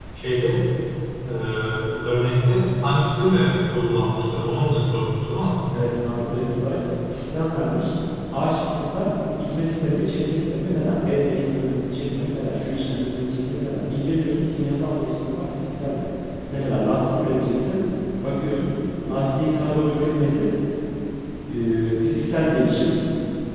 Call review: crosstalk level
none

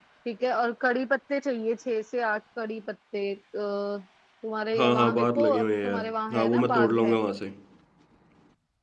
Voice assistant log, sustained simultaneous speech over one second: present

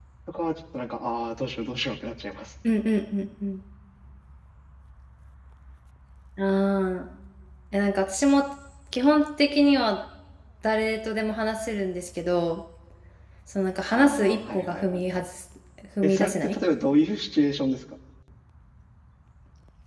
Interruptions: present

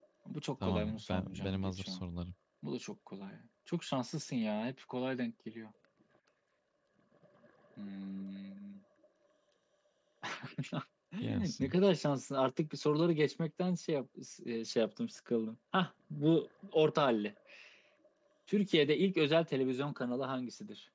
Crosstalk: present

